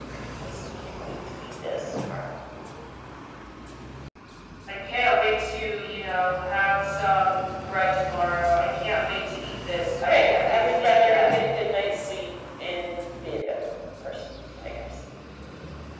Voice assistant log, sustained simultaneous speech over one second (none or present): present